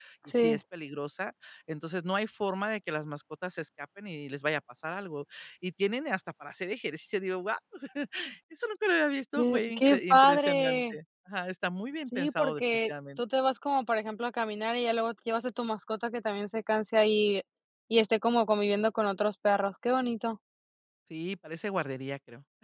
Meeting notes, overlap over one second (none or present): present